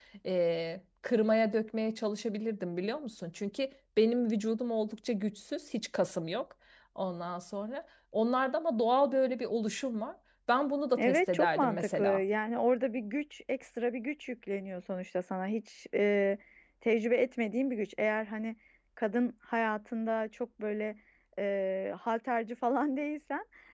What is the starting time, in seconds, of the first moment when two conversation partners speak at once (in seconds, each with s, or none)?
11.0 s